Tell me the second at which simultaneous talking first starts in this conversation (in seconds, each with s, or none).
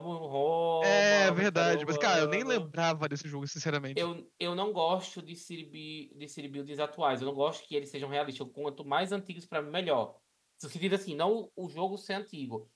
0.8 s